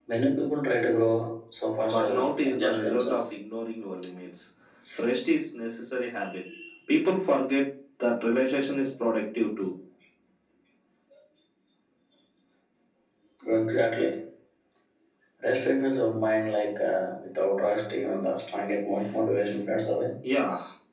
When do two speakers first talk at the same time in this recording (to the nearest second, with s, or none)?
2 s